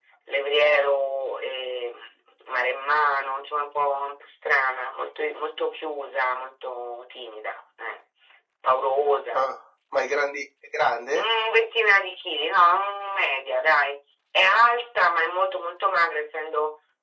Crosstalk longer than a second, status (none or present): none